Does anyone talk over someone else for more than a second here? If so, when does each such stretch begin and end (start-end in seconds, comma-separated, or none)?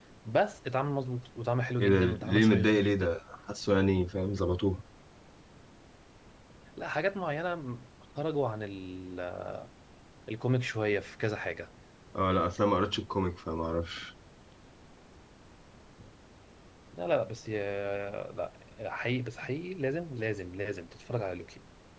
1.8-3.2